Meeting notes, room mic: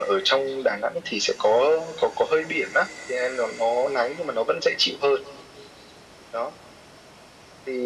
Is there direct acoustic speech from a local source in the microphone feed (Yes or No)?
No